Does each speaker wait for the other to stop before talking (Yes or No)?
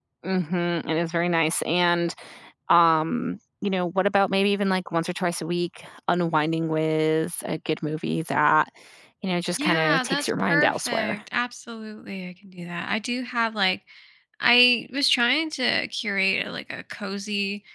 No